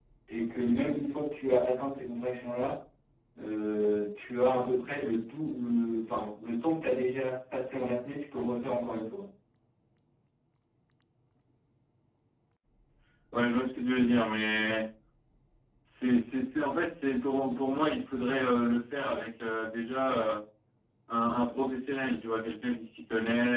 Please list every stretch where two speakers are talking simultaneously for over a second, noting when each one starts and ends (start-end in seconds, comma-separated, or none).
none